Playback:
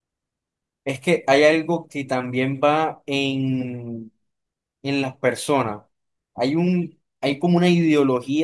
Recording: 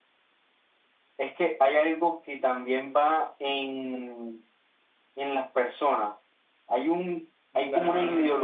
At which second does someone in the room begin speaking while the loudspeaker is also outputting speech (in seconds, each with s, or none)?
7.5 s